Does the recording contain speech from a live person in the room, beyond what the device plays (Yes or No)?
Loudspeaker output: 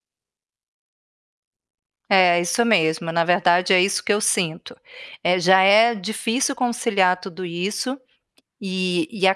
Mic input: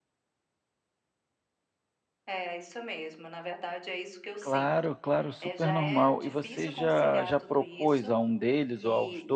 Yes